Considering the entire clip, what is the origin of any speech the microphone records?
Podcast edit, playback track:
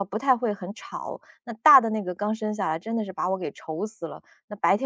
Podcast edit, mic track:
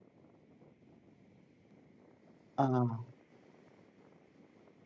user only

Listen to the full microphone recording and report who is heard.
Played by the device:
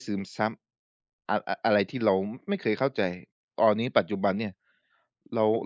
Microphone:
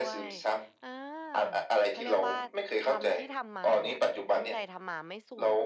both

